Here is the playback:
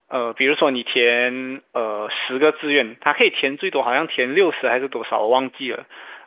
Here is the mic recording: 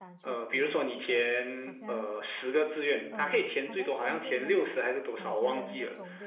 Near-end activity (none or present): present